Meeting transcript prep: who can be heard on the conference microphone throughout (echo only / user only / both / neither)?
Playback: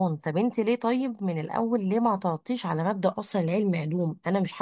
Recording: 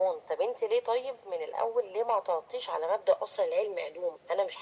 echo only